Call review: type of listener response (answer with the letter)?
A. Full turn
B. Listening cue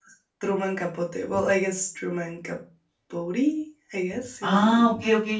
A